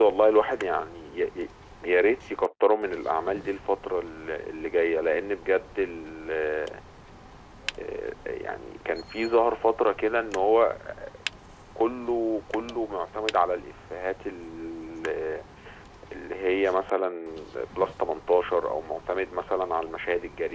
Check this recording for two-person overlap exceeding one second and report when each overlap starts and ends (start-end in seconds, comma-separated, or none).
none